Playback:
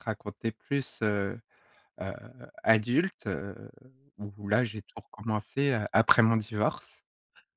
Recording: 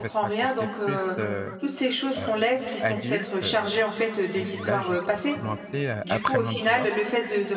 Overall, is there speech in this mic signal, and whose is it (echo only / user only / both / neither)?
both